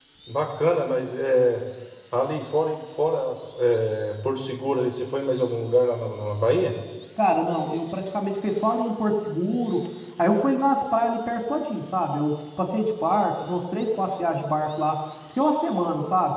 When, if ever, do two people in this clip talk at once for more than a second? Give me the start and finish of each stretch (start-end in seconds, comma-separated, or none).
none